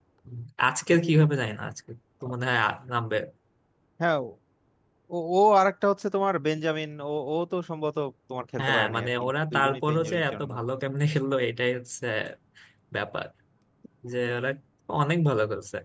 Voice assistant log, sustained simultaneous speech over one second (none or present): present